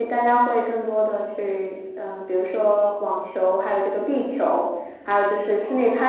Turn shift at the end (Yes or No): No